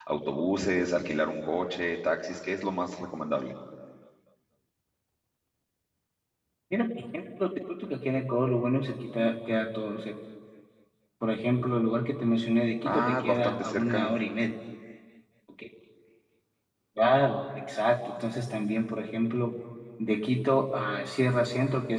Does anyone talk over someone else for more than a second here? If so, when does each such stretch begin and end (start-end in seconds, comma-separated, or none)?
12.8-14.1